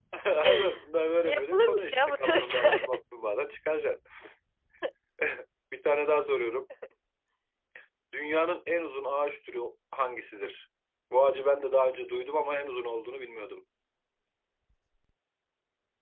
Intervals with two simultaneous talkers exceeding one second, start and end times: 1.2-2.8

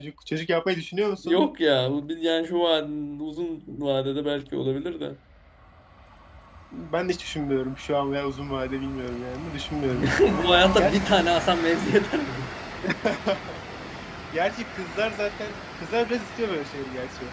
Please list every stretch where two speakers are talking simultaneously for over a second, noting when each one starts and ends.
none

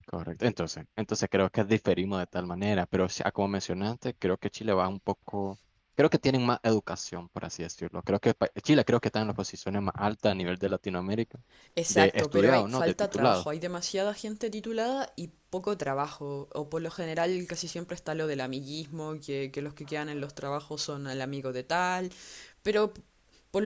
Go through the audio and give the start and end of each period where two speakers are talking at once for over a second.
11.9-13.4

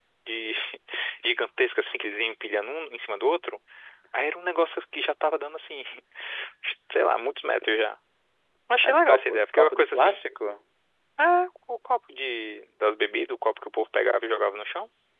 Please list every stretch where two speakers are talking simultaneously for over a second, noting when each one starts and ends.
8.8-10.2

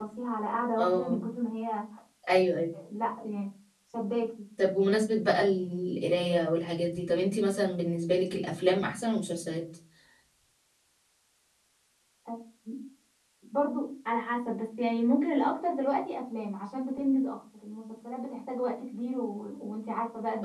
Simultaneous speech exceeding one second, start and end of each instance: none

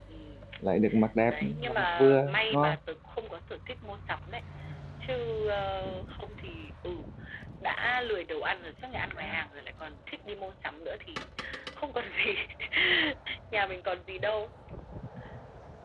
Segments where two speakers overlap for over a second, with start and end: 1.3-2.8

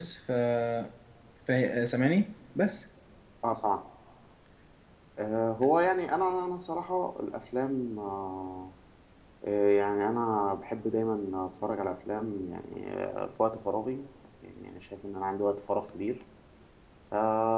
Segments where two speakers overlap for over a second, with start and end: none

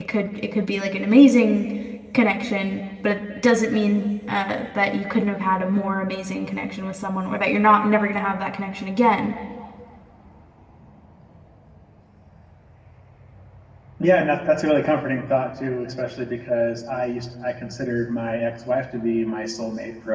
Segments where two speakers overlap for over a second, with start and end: none

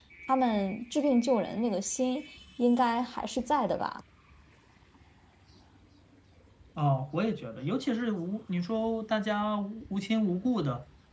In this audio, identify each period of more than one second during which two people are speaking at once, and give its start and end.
none

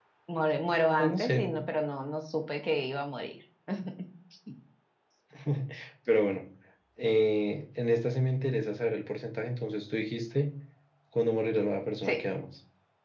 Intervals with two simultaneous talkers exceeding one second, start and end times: none

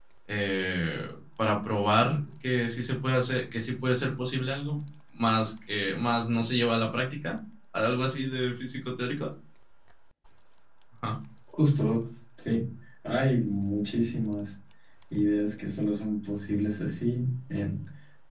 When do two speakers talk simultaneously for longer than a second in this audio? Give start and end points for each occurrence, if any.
none

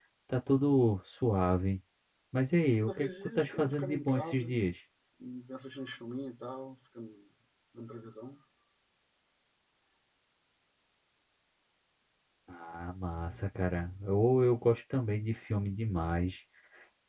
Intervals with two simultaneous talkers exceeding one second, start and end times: 2.9-4.5

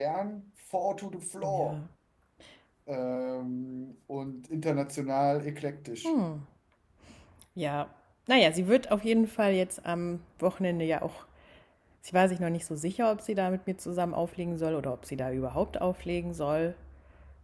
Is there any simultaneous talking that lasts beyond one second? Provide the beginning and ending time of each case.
none

